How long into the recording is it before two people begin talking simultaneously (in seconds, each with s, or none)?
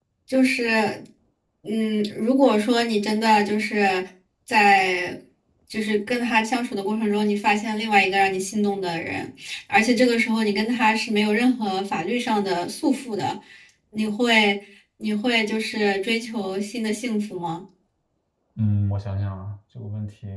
none